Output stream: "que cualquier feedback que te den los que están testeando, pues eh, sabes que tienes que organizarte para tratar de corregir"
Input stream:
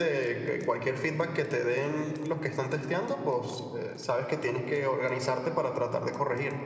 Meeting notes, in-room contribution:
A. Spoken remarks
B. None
B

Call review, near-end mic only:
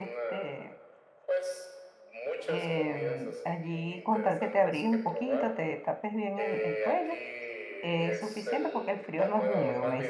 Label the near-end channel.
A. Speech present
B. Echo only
A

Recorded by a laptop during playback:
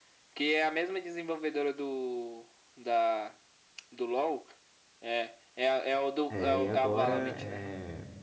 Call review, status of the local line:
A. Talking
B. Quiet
A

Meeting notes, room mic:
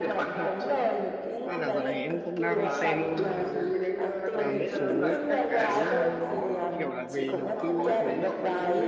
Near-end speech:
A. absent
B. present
B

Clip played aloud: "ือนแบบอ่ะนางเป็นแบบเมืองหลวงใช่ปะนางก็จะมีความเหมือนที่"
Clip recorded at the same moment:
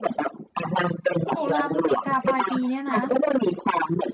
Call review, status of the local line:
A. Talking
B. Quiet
A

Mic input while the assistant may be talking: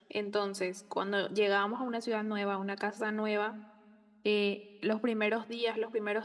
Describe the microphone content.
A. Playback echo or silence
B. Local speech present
A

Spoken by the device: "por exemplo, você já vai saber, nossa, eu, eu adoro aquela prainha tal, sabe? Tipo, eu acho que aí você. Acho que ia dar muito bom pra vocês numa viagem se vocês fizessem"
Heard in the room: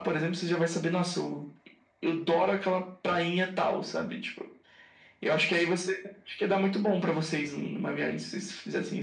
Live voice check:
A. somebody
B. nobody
B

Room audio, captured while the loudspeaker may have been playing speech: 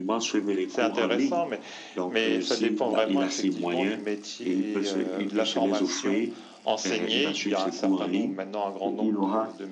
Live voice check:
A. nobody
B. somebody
A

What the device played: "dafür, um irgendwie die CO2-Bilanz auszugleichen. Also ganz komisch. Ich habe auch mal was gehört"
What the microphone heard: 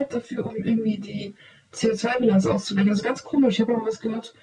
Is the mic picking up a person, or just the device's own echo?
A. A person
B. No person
B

